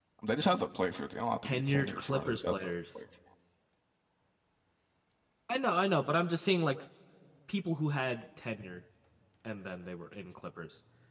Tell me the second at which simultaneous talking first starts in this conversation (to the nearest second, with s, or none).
1 s